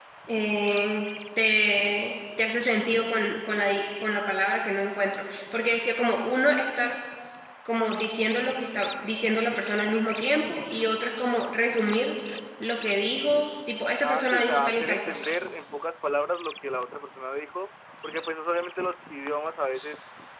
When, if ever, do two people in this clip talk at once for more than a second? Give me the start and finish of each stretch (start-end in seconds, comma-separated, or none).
14.0-15.3